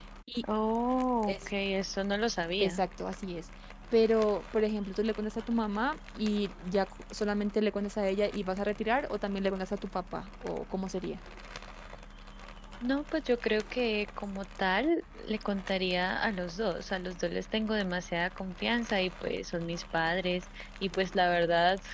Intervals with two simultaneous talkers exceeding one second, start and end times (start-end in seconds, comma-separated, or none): none